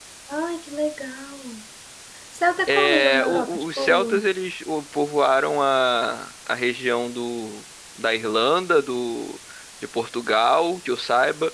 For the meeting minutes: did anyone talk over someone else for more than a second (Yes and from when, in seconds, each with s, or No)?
Yes, from 2.7 s